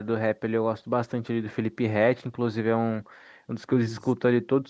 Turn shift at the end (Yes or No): No